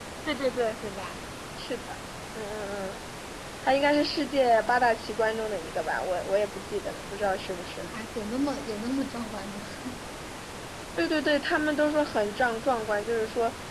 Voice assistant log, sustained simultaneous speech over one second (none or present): none